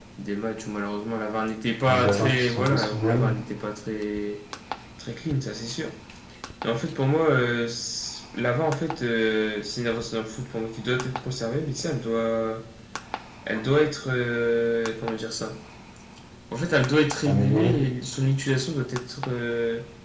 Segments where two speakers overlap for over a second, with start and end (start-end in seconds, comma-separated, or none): 1.9-3.2